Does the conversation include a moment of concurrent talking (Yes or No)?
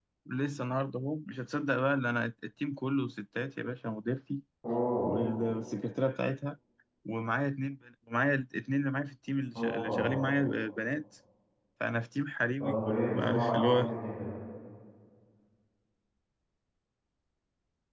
Yes